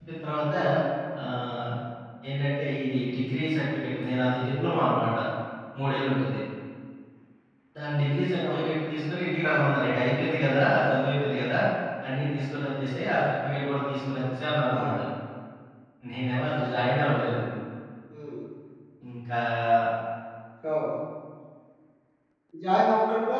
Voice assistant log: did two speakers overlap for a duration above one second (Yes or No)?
No